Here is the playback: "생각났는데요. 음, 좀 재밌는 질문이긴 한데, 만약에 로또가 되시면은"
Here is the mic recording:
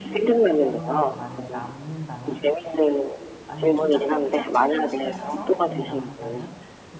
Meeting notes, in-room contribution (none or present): present